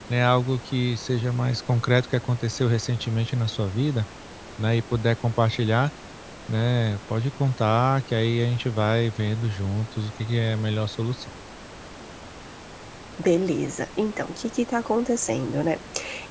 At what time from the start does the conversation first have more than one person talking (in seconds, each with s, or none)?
none